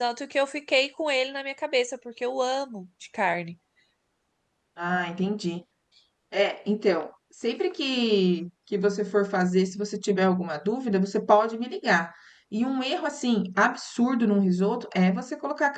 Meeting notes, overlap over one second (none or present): none